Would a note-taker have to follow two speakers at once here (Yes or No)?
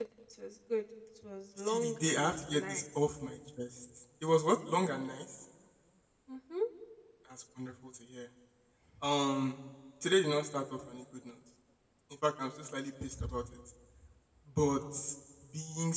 Yes